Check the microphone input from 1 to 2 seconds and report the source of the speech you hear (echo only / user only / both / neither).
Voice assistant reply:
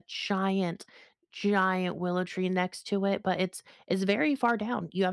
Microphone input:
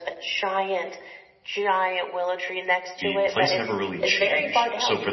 echo only